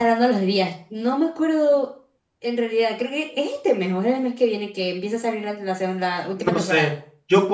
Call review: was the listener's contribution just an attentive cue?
No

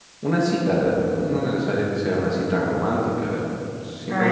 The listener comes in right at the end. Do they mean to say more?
Yes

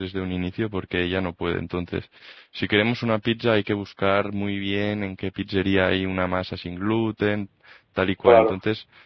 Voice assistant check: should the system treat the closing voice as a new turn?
No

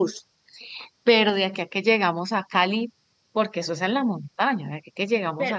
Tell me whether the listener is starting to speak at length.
Yes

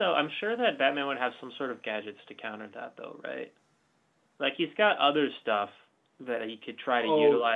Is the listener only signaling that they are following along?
Yes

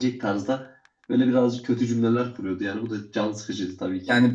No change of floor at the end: No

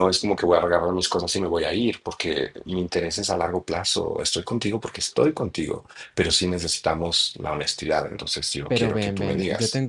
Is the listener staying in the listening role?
No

